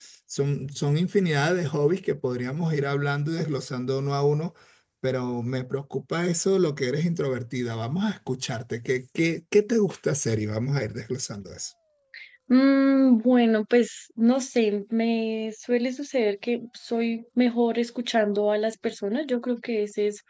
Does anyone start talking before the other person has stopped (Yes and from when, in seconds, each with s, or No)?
No